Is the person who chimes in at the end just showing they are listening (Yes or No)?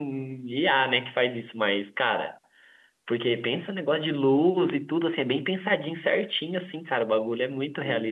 No